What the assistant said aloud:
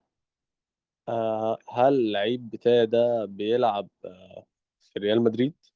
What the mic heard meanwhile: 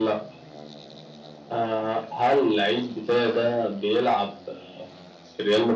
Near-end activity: present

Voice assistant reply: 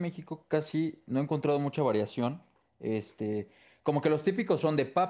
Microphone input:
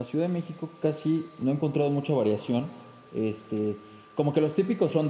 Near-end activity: none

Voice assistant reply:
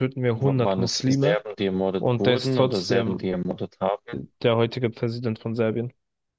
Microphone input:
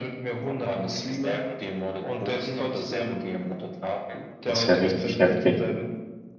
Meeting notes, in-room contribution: present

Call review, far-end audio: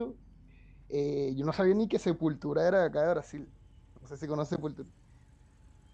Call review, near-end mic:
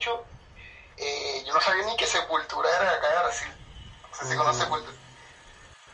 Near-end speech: present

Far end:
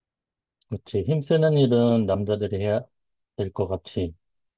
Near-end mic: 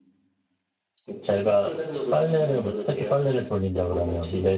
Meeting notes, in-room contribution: present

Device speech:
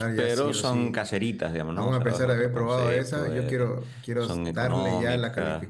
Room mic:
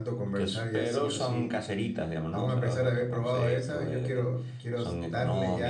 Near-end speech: none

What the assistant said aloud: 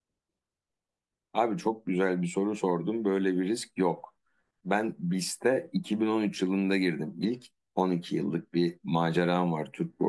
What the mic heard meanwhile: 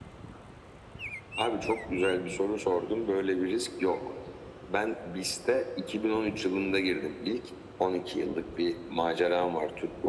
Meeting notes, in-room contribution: none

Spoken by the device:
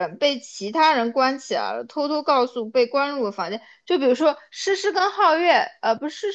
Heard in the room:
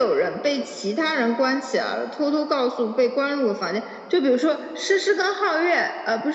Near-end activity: none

